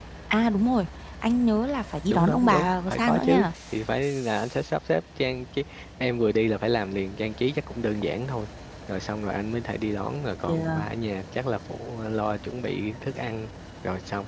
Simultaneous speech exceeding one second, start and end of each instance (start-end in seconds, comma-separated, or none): 2.1-3.5